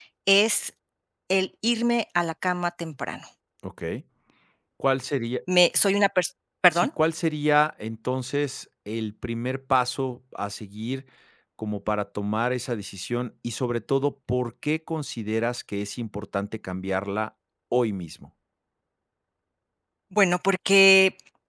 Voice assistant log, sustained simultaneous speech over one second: none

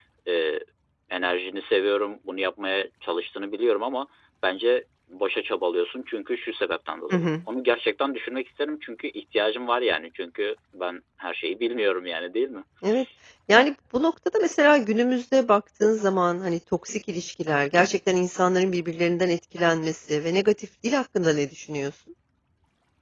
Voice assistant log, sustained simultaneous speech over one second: none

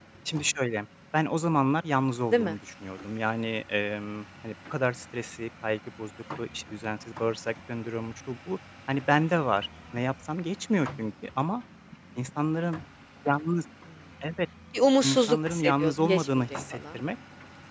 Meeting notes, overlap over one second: present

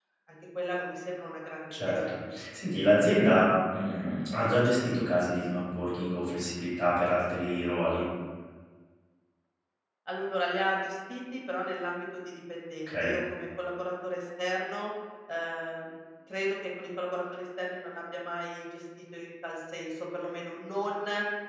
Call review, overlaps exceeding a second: none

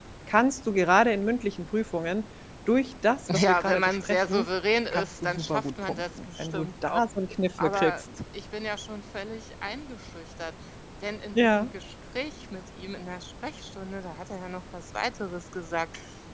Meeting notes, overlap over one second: present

